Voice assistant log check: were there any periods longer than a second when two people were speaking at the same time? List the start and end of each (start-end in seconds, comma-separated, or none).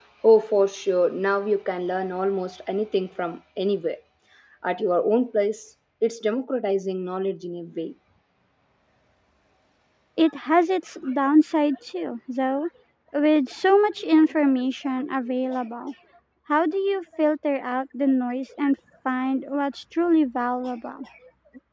none